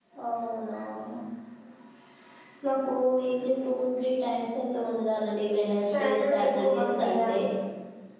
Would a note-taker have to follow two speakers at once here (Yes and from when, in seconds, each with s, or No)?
Yes, from 5.8 s